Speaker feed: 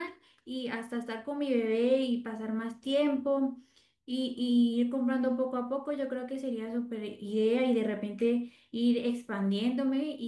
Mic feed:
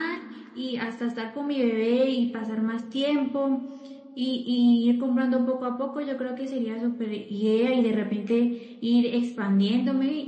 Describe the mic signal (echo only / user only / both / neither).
echo only